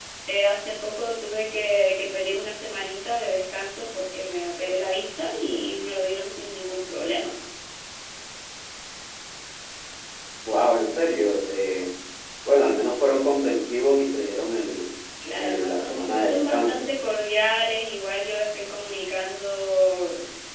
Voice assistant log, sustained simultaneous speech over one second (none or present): present